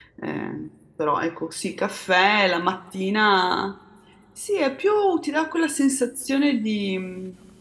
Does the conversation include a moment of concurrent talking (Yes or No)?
No